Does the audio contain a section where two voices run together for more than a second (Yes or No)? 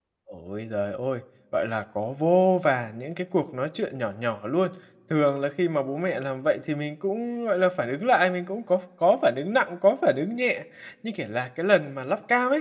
No